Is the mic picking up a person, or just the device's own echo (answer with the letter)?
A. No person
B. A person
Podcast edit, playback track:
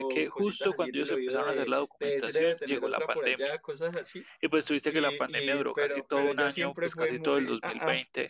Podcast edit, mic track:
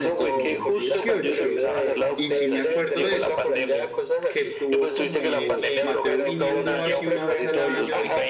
B